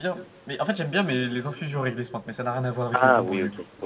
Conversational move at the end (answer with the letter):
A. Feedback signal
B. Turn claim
B